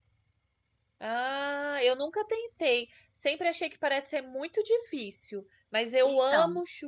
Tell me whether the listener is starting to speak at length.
No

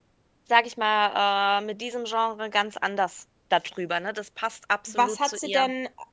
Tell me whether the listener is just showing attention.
No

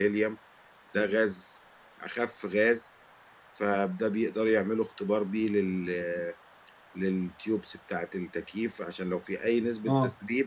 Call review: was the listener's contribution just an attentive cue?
Yes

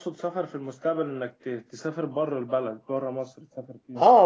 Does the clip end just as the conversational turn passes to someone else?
Yes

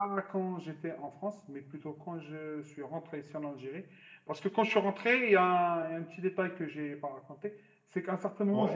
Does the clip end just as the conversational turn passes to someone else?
No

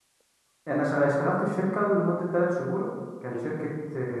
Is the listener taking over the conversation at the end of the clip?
No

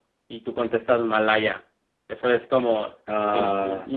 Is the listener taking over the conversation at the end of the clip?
No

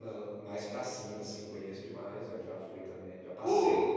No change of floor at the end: No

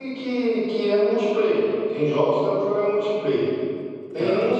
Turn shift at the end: No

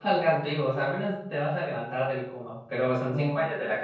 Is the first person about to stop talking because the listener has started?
No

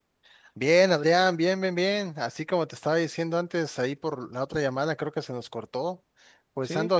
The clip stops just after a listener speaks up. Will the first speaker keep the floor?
Yes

